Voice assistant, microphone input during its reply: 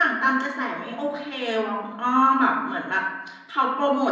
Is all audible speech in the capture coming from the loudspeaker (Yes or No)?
Yes